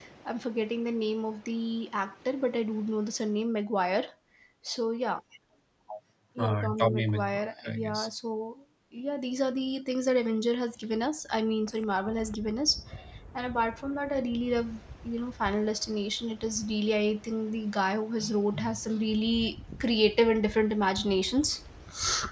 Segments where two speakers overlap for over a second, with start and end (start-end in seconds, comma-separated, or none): 6.4-8.1